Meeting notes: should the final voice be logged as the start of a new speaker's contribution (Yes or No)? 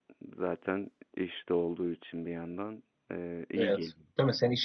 Yes